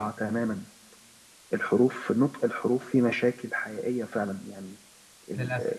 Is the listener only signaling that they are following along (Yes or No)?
Yes